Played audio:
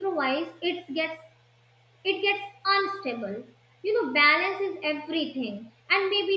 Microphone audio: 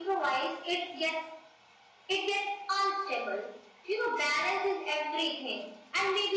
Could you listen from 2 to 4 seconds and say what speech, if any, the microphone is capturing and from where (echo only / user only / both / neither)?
echo only